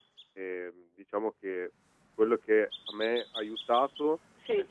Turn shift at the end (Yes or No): No